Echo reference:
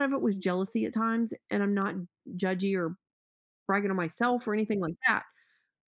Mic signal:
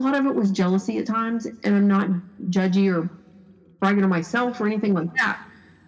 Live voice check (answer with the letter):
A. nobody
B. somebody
A